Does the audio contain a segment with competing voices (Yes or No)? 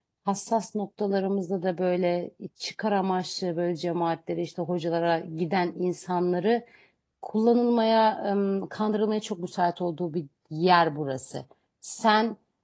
No